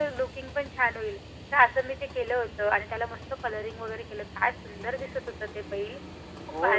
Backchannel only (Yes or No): No